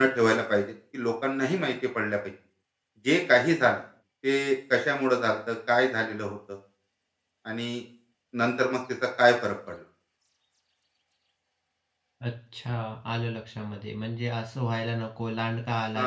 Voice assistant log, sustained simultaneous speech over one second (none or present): none